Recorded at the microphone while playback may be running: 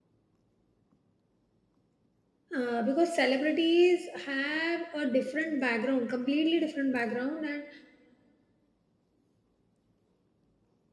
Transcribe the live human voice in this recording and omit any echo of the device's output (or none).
Uh, because celebrities have a different background, completely different background, and